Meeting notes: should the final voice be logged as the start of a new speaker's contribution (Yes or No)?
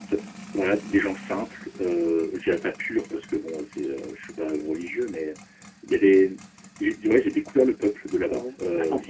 Yes